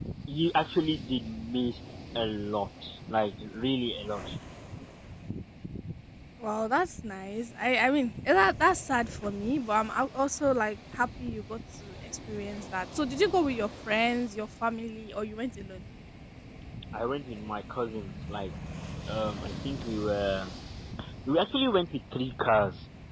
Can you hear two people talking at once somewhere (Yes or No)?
No